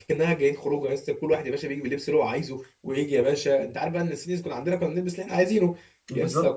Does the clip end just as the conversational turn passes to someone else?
No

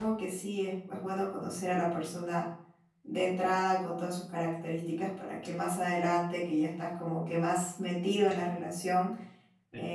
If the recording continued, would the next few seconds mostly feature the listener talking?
No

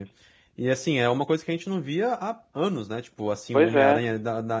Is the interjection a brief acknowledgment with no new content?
Yes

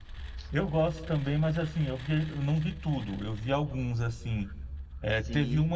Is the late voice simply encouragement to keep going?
Yes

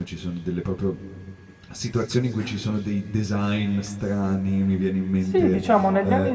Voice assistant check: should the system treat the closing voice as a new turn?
Yes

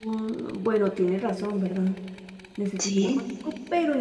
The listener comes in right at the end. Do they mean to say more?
No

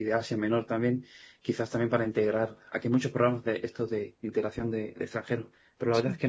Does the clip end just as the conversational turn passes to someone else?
No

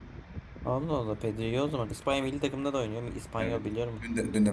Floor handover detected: Yes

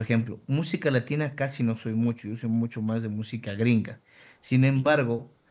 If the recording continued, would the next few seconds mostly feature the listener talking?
No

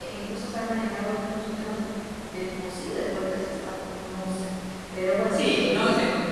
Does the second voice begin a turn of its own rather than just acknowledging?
Yes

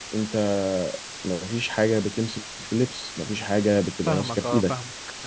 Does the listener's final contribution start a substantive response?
Yes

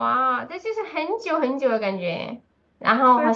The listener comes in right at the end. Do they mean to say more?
Yes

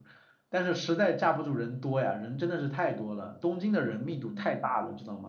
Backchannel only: No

